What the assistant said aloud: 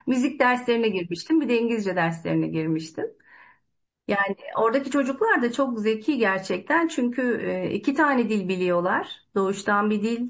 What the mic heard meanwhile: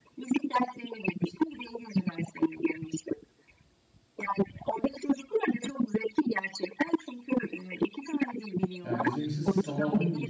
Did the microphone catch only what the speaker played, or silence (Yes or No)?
No